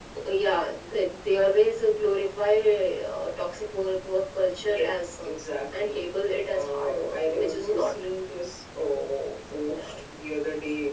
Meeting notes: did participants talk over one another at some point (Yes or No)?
Yes